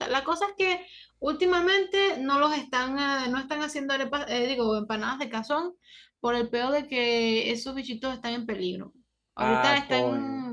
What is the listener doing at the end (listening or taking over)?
listening